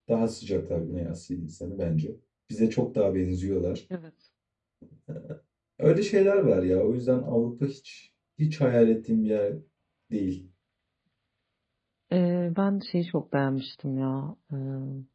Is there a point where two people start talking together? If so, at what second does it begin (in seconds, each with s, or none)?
none